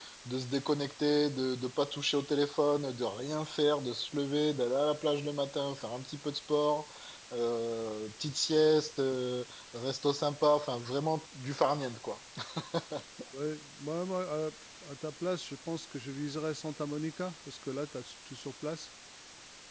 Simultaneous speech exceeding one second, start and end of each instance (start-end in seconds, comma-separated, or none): none